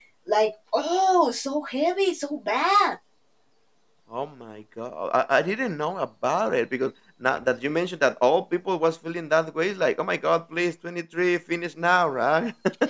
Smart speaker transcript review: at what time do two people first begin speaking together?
none

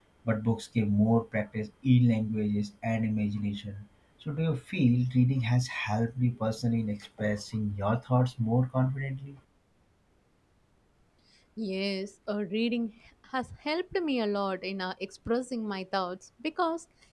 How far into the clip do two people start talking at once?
none

